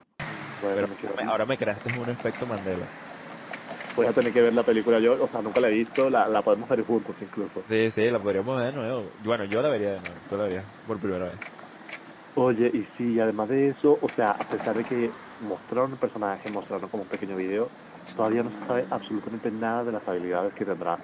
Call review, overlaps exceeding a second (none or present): none